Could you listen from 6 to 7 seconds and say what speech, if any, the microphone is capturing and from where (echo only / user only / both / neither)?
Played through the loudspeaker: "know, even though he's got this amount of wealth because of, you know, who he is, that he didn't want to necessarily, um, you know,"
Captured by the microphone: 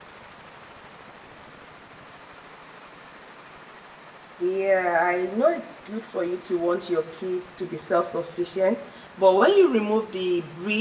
user only